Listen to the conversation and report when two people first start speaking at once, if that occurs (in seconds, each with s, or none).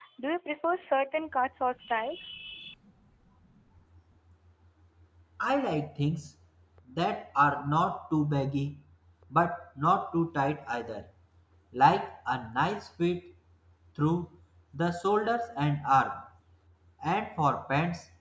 none